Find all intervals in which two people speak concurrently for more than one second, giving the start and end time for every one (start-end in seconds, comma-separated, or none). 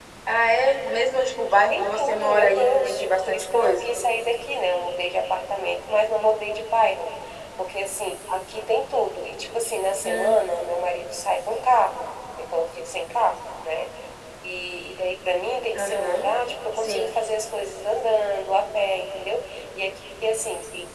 1.7-3.9